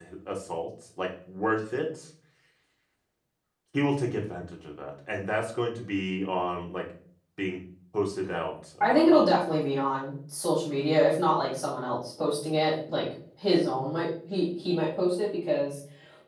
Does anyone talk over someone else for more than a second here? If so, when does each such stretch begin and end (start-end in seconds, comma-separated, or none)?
none